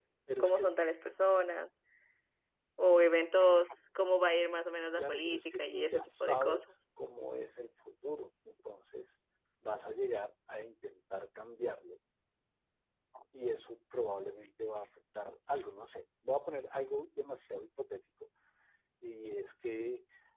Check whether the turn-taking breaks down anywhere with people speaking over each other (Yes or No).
Yes